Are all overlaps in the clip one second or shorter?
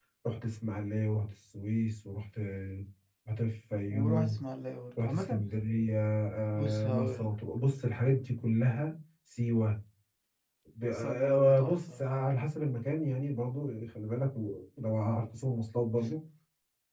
No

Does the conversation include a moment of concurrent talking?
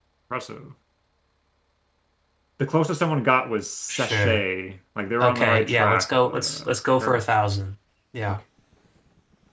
Yes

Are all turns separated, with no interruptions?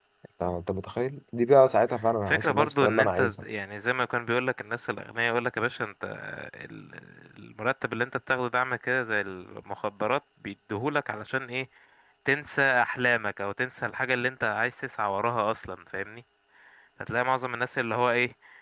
No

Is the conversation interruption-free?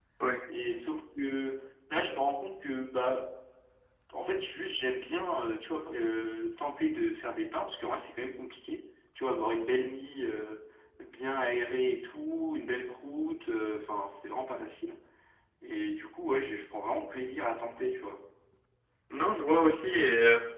Yes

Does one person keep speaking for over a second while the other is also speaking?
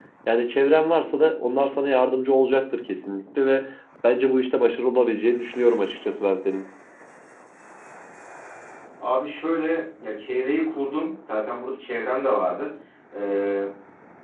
No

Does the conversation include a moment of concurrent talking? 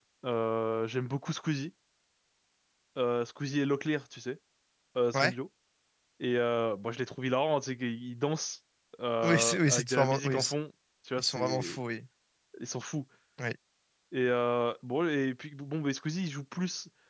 Yes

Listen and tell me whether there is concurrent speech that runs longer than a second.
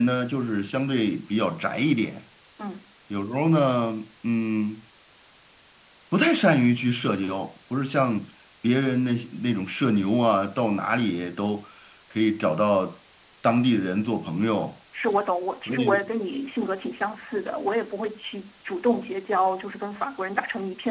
No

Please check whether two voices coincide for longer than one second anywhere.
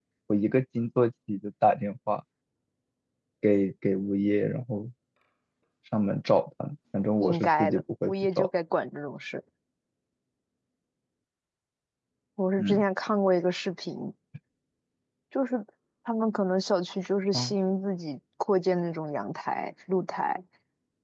Yes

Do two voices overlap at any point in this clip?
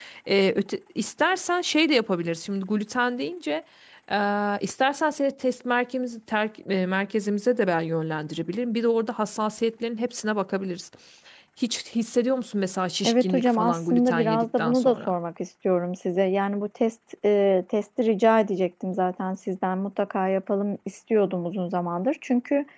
Yes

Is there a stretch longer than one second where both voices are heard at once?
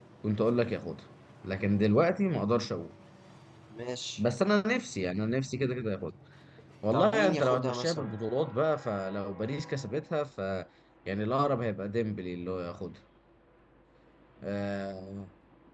Yes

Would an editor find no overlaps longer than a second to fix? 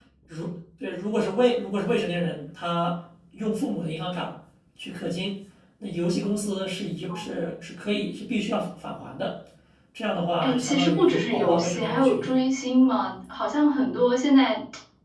No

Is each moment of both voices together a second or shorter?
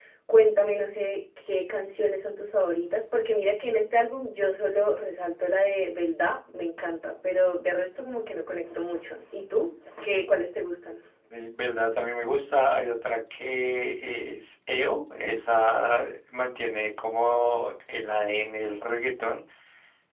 Yes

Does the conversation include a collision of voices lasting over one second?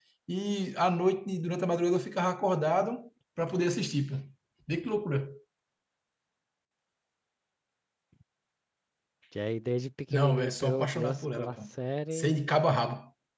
Yes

